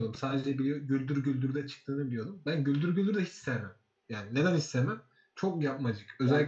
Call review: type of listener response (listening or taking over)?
listening